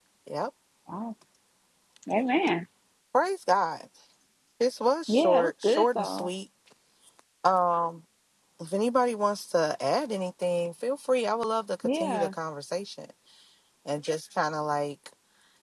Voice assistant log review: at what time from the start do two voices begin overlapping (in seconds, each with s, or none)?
5.1 s